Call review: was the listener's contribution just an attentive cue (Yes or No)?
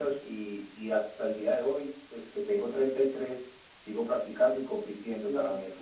Yes